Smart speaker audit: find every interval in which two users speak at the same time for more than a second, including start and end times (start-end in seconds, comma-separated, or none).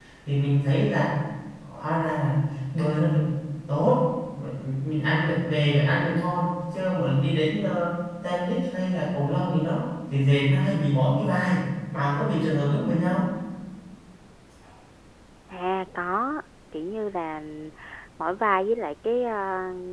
none